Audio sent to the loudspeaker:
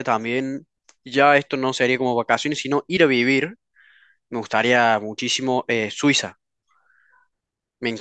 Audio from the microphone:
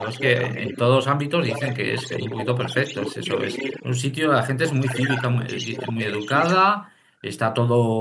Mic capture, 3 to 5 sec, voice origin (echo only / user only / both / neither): both